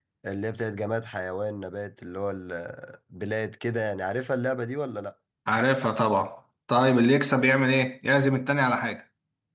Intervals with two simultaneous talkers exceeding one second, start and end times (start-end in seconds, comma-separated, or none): none